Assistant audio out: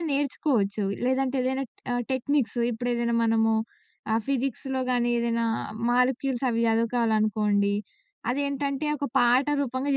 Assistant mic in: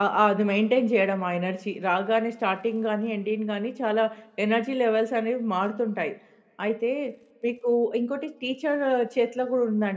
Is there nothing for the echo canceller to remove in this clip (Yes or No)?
Yes